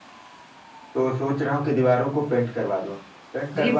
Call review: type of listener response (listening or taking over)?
listening